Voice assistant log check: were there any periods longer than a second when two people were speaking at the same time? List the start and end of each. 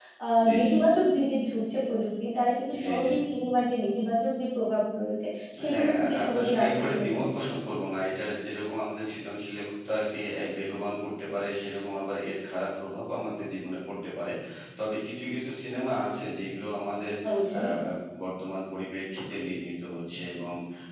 5.7-7.4

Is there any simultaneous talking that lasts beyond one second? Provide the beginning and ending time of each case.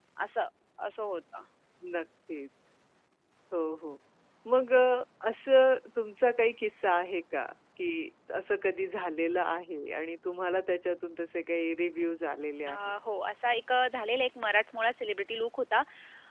none

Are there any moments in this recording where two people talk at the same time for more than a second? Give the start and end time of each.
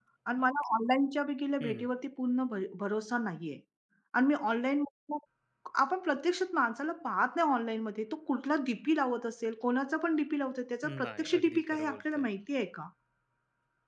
11.1-12.2

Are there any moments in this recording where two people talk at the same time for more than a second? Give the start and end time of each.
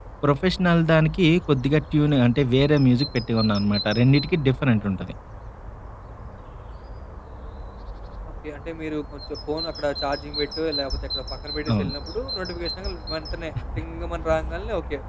none

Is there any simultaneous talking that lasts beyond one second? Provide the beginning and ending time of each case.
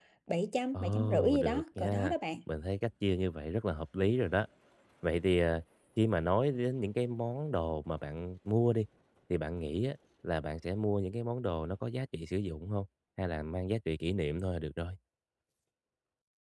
0.7-2.2

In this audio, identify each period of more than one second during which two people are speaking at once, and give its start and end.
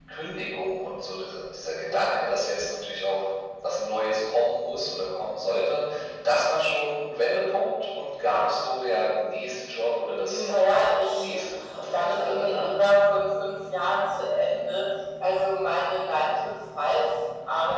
11.1-12.8

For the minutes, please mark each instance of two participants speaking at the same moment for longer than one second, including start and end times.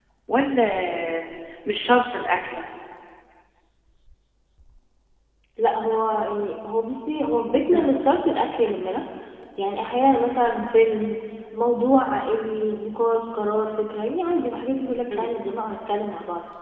none

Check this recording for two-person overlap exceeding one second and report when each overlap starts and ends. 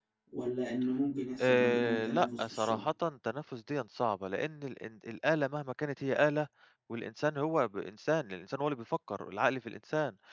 1.4-2.8

